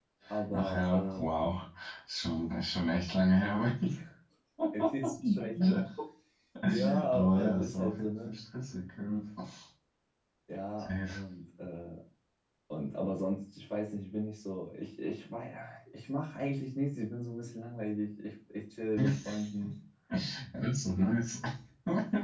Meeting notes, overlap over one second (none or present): present